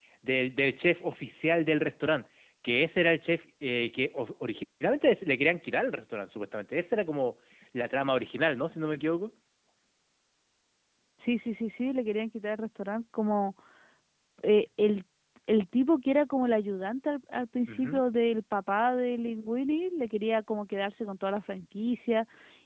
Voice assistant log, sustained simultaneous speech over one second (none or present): none